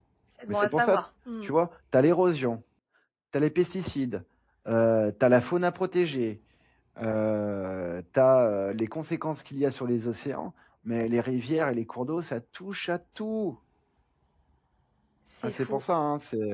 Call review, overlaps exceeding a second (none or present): none